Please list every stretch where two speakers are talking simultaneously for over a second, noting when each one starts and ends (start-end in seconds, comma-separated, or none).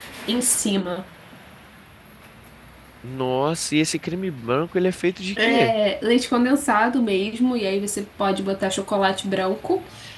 none